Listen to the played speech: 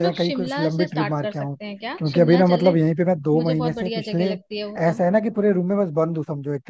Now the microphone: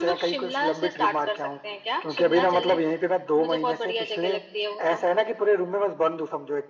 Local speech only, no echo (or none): none